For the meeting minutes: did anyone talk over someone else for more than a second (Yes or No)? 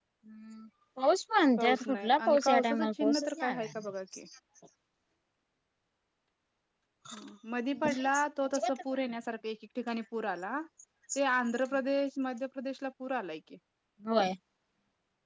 Yes